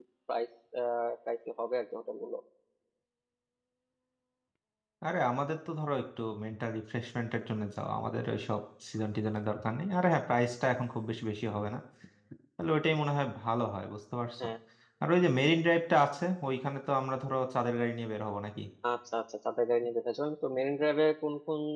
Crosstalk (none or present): none